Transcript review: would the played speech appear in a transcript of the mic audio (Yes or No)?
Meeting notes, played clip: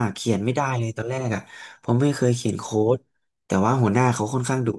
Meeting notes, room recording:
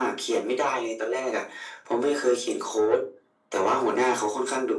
Yes